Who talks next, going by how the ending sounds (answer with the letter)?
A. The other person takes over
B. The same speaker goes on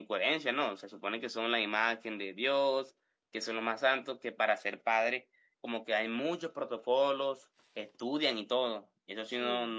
B